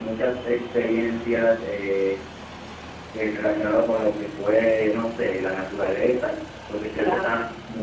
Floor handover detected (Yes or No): No